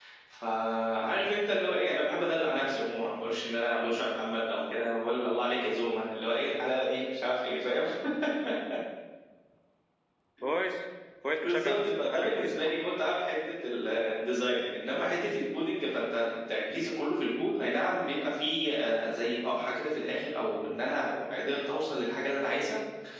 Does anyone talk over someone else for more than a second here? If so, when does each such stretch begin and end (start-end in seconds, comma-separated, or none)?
11.4-12.8